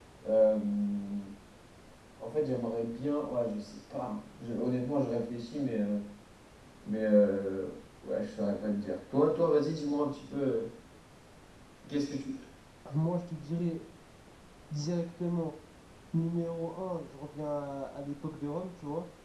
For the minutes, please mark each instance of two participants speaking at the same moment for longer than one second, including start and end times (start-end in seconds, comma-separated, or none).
none